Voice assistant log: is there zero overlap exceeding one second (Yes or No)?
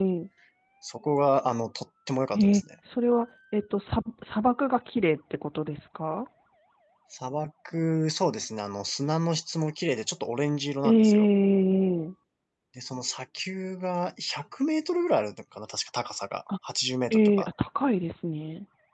Yes